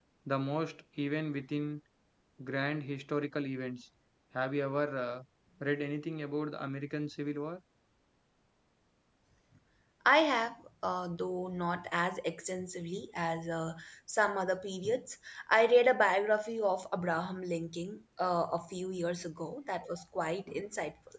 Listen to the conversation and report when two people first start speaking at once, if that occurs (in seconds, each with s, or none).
none